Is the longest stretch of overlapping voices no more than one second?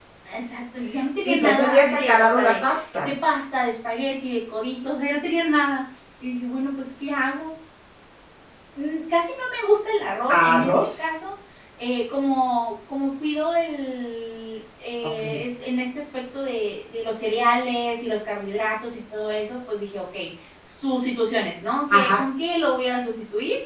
No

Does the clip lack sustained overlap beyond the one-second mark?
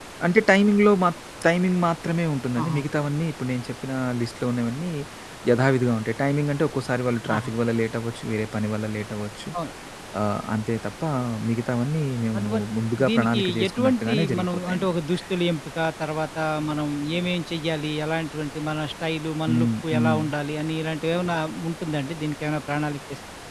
No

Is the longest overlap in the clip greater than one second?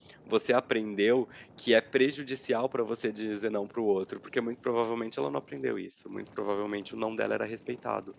No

